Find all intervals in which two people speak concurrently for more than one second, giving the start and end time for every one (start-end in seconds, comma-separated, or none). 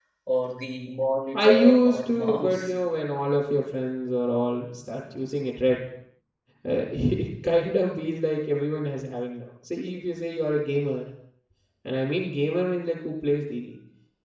1.3-2.7